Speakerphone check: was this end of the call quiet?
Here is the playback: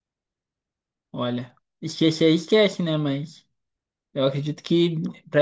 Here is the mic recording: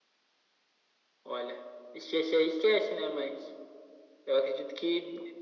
Yes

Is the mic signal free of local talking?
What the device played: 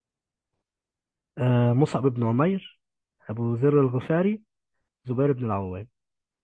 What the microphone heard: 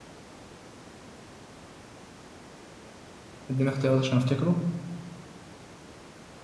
No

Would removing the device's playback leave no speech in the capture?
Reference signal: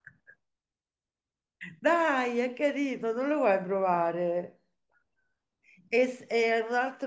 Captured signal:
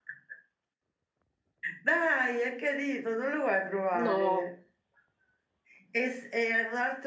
No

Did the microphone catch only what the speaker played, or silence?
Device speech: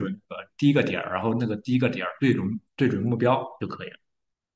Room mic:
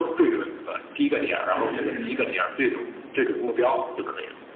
No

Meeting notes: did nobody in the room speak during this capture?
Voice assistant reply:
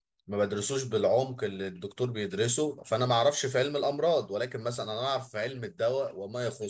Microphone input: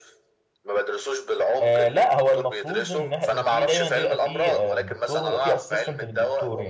No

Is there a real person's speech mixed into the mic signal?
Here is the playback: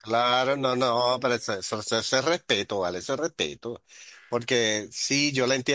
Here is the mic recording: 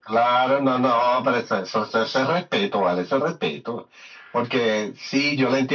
No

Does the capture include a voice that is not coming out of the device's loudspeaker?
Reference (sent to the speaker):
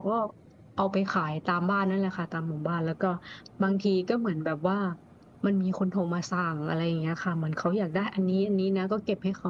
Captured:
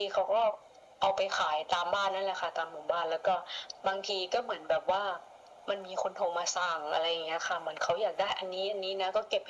No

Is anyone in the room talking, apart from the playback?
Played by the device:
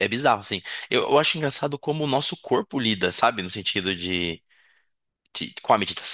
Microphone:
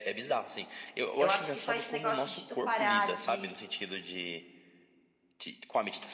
Yes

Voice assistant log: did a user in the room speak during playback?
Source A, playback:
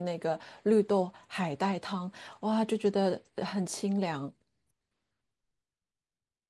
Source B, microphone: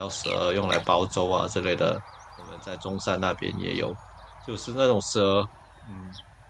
Yes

